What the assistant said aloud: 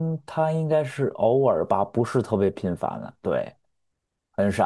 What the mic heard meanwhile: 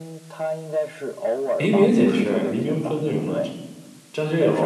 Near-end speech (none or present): present